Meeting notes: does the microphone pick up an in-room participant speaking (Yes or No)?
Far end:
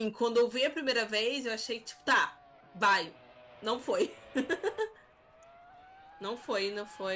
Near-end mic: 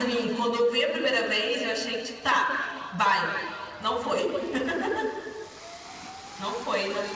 No